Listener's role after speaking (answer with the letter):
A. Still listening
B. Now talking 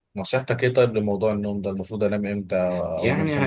B